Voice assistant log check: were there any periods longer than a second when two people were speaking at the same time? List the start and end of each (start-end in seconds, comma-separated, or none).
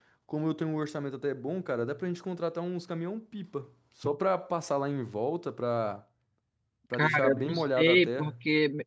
6.9-8.3